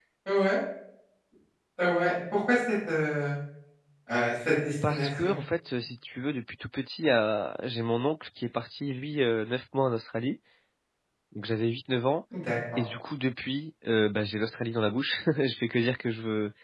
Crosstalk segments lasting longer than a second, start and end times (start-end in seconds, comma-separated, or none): none